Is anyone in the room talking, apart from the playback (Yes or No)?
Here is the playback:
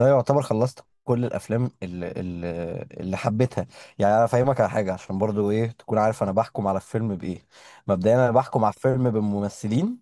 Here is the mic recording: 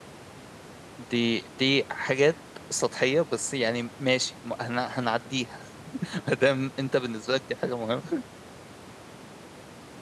Yes